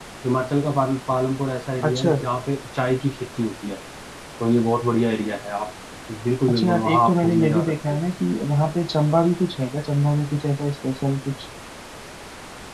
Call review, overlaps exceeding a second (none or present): present